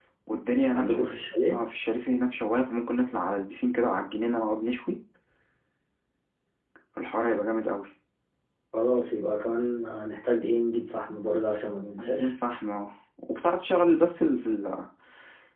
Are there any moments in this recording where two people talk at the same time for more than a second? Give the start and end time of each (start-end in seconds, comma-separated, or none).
none